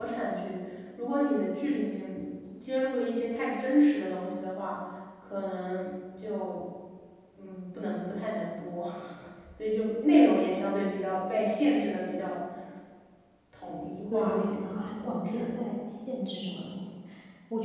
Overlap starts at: 14.1 s

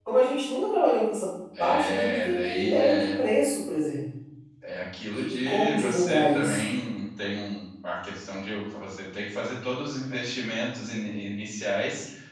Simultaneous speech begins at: 1.6 s

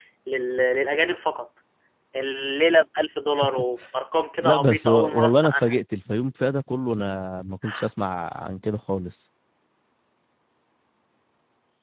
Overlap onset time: 4.4 s

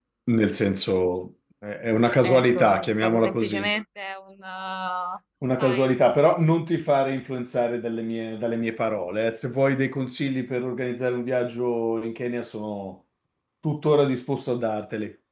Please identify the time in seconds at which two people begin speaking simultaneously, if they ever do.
2.2 s

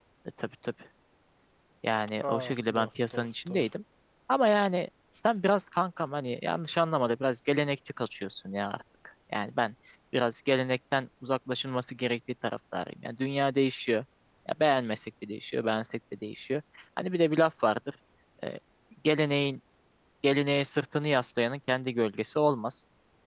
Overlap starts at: 2.3 s

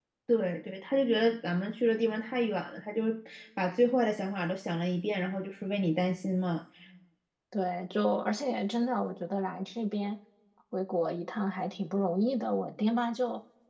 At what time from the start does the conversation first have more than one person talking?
none

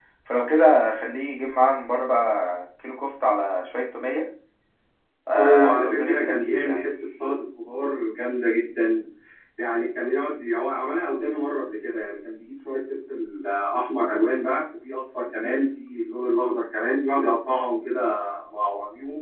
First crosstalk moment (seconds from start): 5.3 s

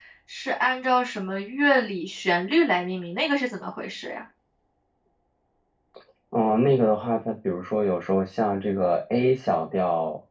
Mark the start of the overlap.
none

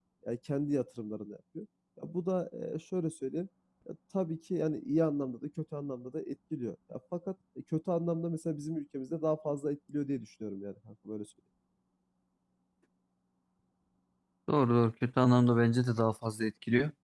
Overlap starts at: none

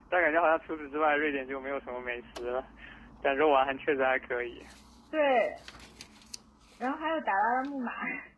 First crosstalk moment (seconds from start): none

